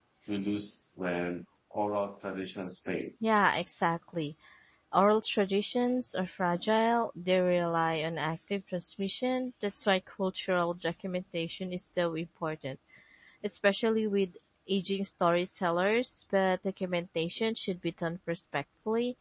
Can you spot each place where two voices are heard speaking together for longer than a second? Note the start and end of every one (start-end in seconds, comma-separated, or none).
none